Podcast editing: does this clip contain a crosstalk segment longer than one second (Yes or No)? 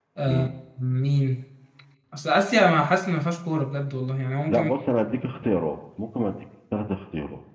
No